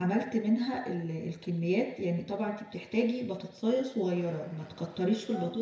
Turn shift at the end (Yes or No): No